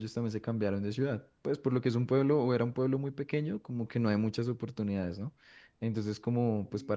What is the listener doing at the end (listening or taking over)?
listening